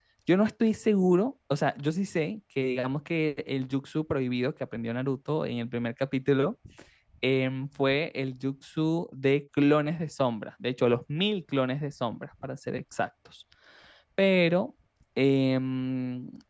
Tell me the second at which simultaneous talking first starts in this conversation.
none

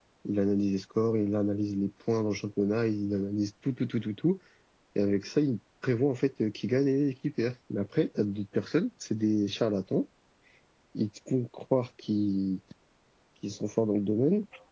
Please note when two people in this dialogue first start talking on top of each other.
none

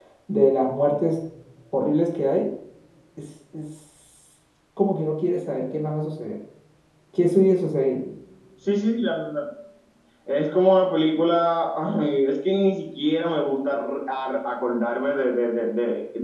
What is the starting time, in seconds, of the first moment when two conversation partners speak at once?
none

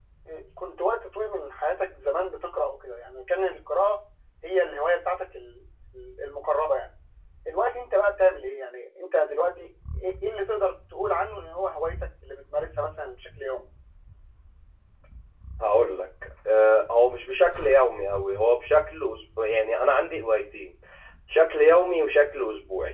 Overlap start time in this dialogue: none

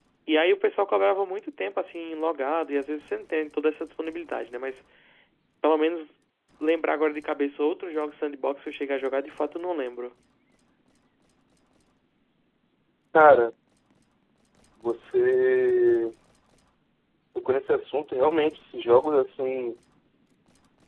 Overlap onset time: none

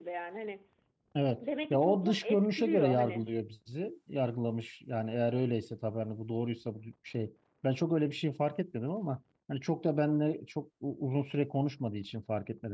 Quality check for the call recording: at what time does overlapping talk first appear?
2 s

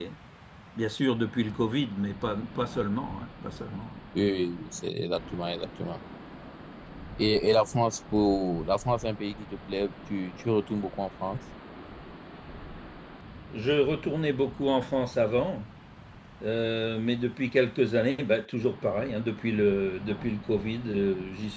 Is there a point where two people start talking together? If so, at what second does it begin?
none

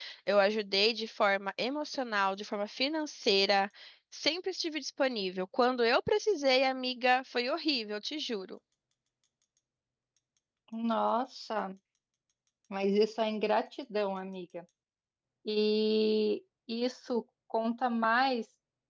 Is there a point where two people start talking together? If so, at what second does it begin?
none

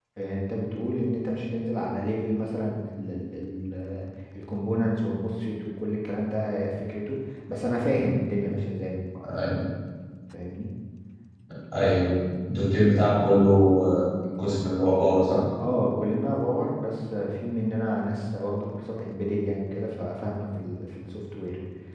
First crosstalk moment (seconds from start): none

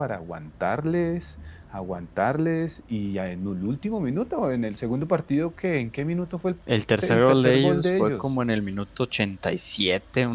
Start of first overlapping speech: 7 s

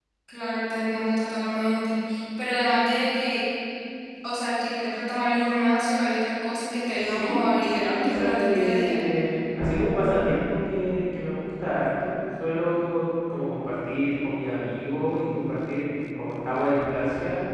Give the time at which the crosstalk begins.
7 s

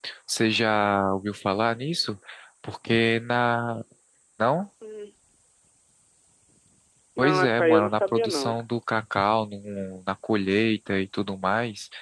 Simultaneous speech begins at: 7 s

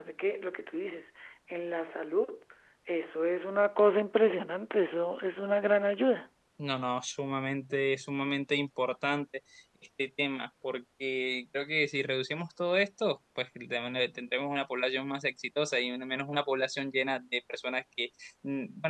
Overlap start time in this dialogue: none

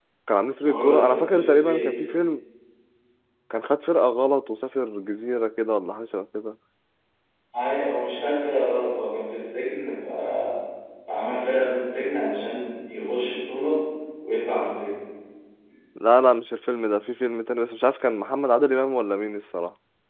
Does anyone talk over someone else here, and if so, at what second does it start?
1 s

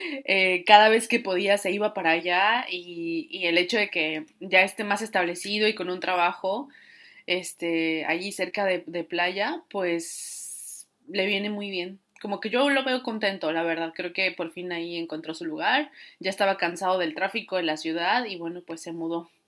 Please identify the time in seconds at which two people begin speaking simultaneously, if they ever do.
none

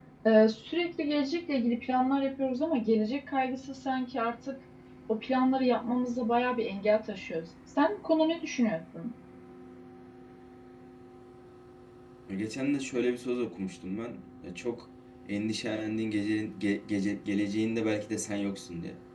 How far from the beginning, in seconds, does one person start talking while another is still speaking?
none

